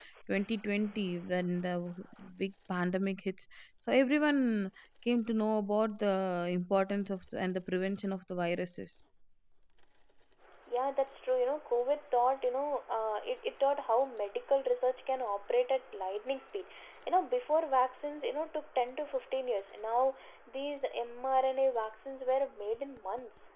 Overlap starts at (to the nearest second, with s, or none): none